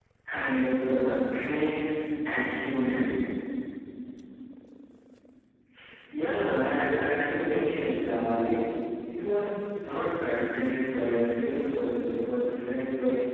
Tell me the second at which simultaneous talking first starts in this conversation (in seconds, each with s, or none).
none